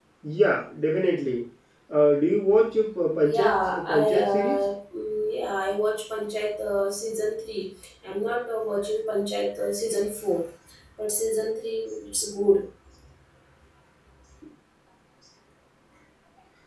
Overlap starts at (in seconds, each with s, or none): 3.2 s